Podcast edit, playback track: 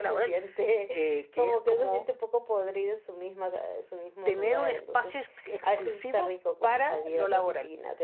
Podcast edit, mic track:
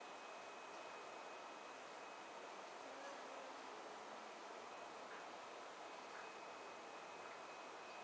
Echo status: none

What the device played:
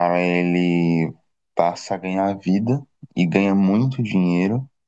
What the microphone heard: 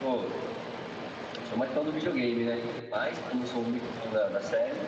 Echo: none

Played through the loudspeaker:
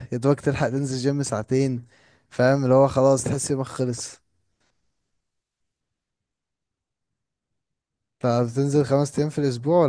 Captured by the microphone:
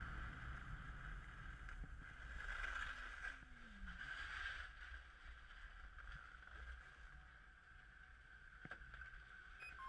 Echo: none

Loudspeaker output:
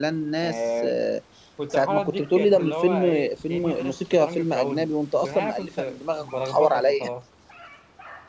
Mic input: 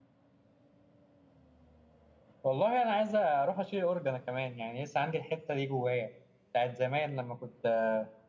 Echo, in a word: none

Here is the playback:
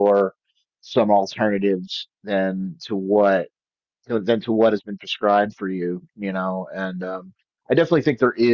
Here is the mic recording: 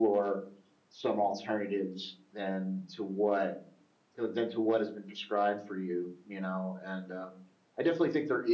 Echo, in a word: present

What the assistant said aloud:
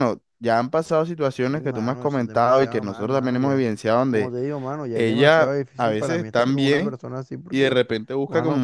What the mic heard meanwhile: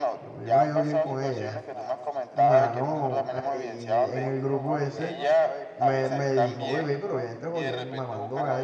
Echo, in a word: present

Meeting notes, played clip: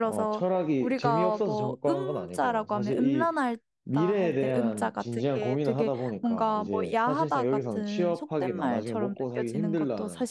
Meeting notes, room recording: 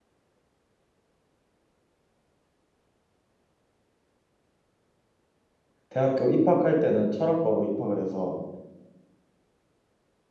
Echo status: none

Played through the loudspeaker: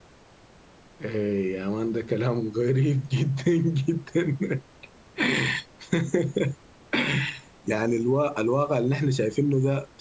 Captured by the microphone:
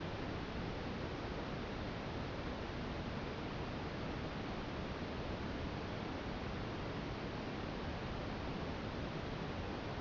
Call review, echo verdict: none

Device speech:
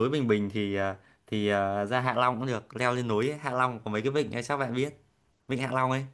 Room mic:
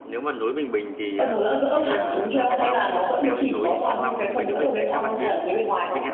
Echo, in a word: present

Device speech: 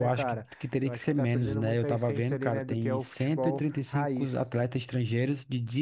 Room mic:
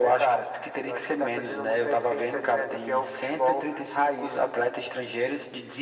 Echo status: present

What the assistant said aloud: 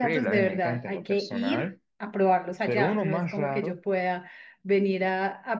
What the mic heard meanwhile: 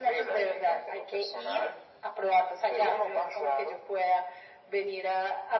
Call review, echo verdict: present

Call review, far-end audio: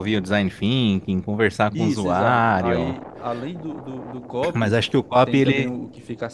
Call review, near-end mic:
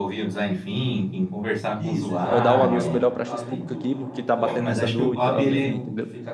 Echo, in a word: present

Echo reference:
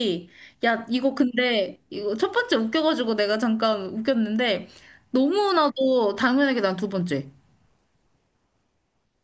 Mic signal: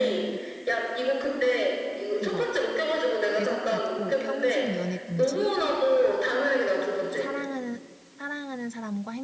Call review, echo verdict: present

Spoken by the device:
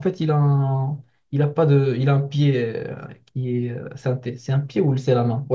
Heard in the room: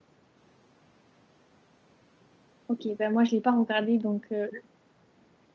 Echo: none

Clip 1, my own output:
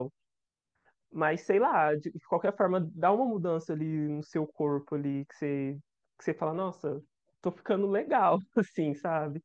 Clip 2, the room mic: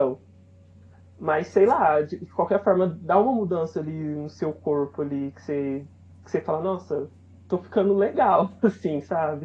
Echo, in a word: present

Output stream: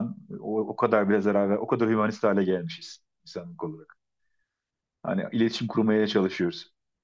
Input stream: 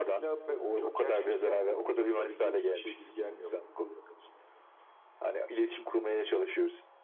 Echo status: present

